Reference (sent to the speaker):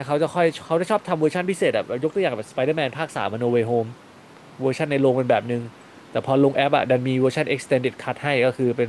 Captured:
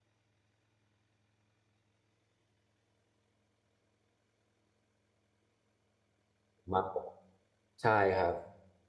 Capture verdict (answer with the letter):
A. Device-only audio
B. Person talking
B